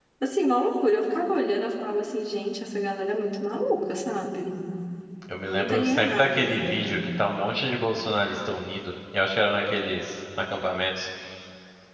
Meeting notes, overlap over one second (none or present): present